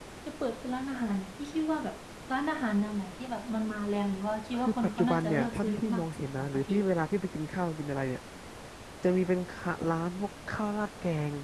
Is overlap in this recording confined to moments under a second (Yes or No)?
No